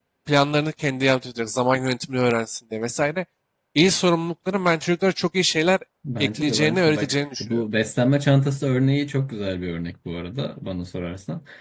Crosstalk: present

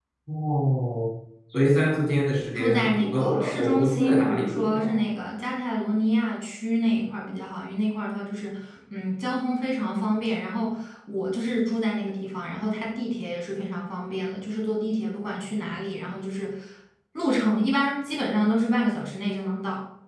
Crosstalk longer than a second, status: present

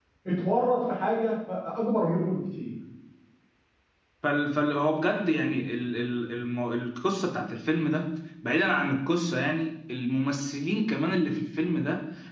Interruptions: none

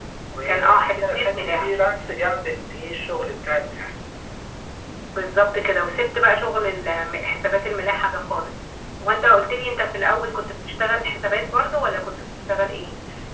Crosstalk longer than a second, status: present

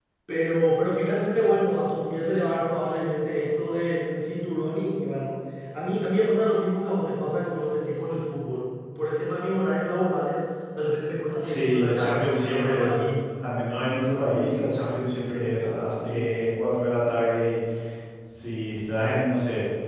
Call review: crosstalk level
present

